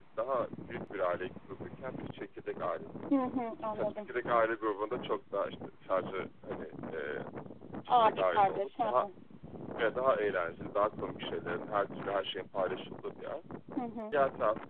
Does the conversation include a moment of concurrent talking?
Yes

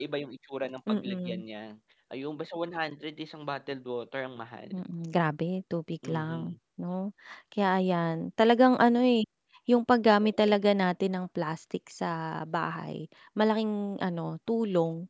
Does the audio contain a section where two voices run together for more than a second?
No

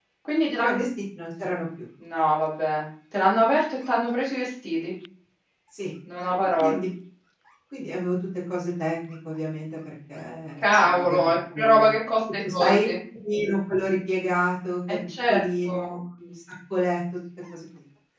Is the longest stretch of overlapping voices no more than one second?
No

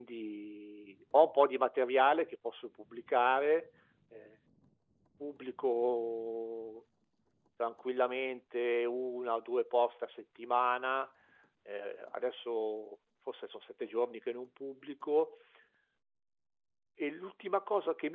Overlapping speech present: No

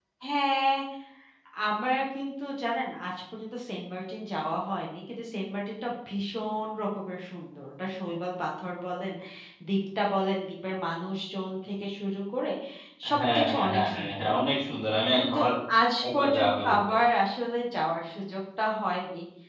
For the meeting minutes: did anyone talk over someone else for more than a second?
Yes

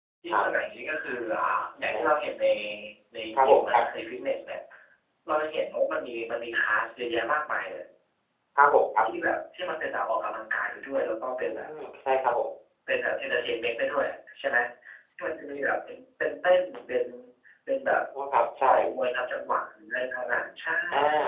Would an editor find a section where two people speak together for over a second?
No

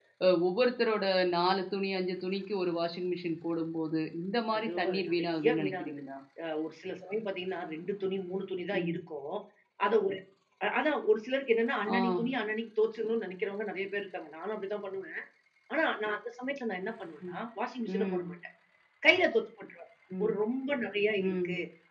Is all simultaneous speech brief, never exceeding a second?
No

